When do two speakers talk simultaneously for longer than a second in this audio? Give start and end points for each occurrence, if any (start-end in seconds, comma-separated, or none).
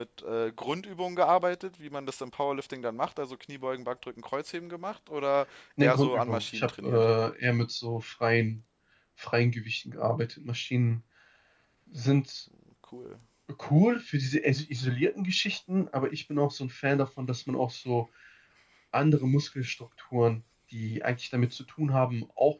5.8-7.1